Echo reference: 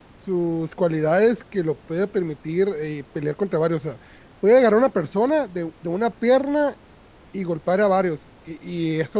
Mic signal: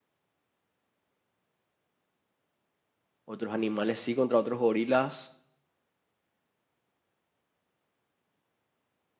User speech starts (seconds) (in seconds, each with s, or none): 3.2 s